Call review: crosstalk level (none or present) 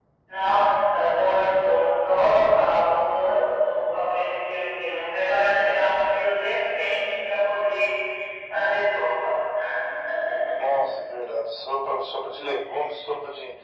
none